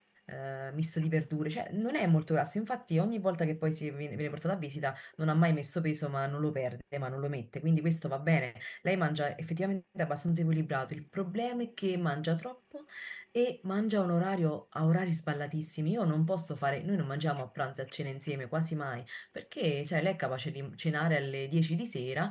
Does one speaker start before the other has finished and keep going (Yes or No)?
No